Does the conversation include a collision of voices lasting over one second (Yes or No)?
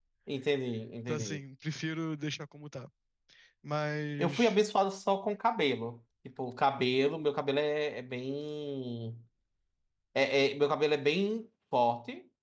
No